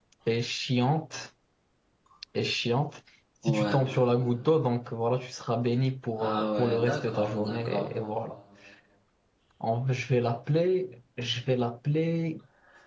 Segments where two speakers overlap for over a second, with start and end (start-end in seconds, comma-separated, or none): 6.2-7.9